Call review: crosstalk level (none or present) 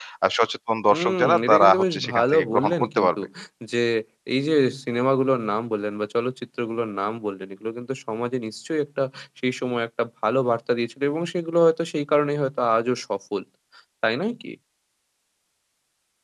present